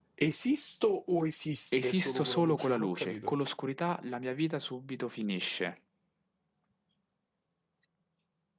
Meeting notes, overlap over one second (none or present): present